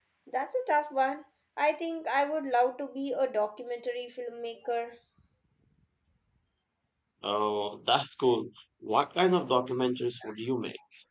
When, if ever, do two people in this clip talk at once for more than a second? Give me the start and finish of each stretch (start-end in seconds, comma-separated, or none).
none